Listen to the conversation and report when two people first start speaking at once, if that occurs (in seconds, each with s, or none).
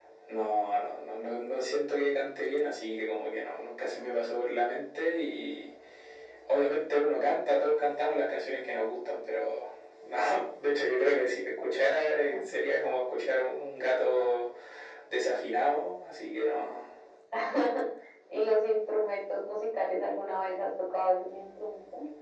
none